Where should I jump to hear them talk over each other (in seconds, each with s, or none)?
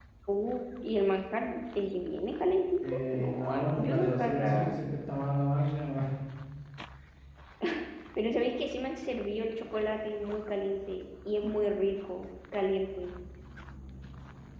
2.8 s